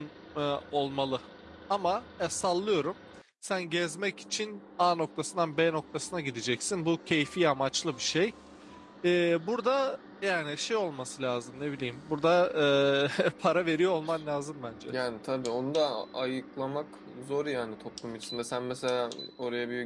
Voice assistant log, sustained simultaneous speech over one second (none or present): none